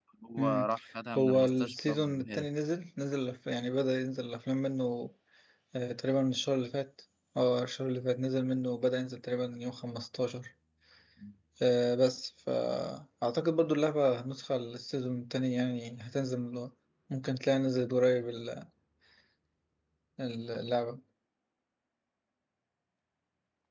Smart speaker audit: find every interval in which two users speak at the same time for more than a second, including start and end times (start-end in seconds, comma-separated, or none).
1.2-2.5